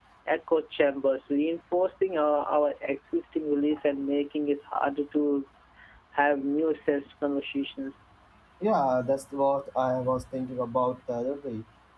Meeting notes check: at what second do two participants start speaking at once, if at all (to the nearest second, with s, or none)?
none